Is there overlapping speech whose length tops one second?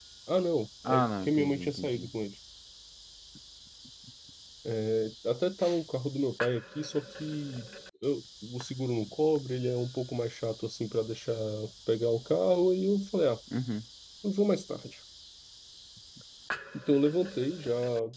Yes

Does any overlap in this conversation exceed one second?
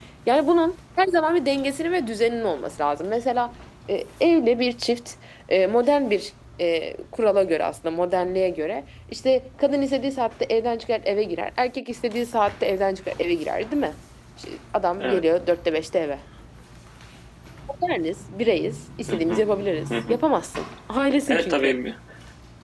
No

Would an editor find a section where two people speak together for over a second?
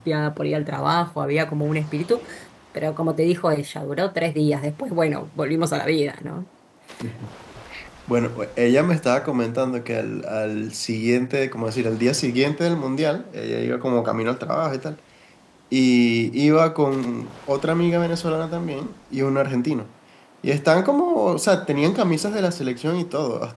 No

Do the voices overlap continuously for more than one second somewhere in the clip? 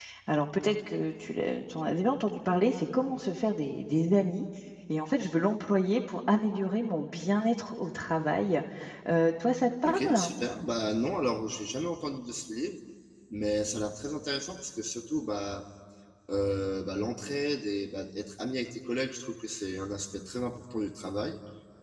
No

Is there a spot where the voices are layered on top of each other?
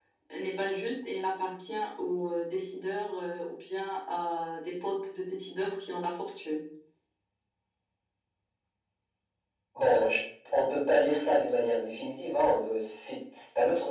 No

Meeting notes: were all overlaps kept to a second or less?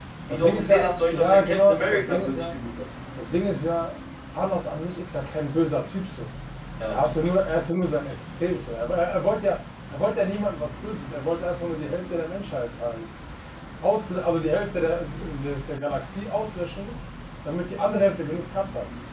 No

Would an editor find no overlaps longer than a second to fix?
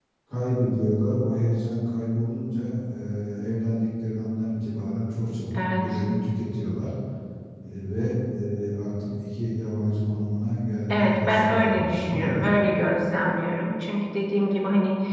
No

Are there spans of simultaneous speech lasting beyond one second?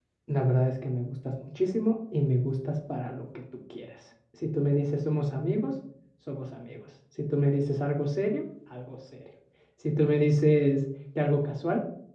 No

